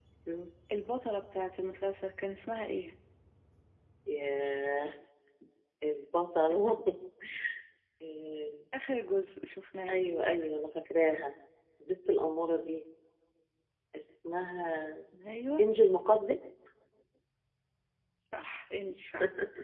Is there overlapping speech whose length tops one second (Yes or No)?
No